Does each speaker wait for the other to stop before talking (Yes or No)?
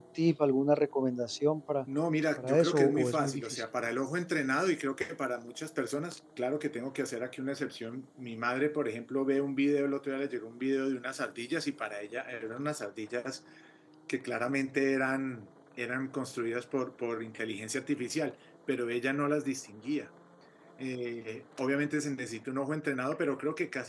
No